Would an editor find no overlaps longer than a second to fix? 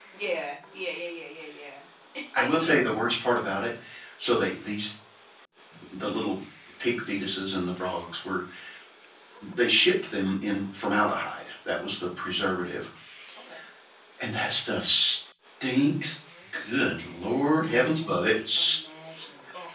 No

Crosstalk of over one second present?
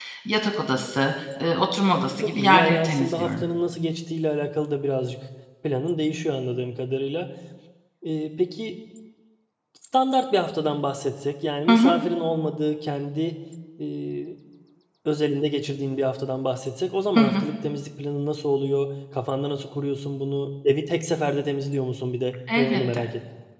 Yes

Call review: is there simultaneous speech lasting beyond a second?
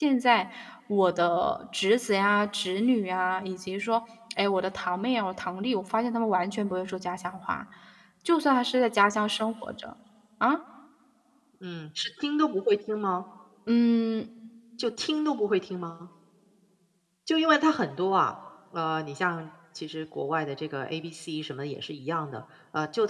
No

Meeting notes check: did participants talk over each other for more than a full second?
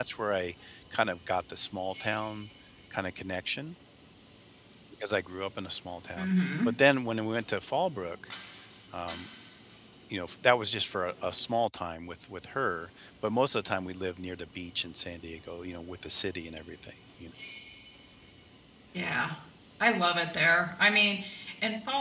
No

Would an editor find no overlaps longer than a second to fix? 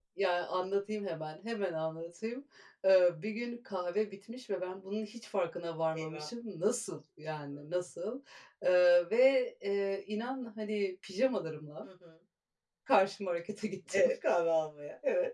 Yes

